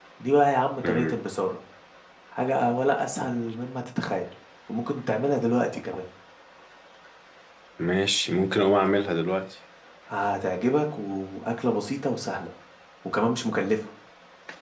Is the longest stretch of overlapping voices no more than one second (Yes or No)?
Yes